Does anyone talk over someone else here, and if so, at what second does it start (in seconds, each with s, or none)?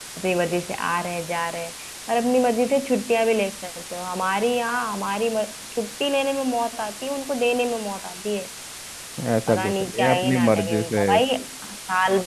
9.5 s